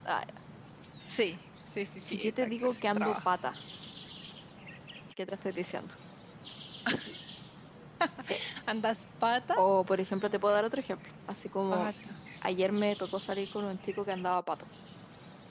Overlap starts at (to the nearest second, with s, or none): 2 s